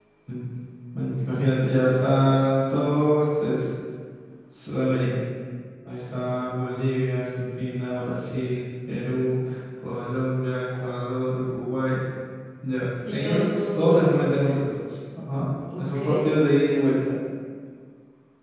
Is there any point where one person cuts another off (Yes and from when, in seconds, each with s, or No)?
Yes, from 13.1 s